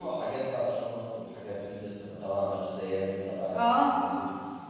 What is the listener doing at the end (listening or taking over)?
listening